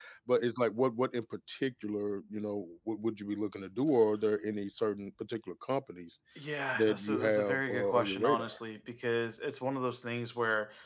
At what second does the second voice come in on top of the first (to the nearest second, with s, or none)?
7 s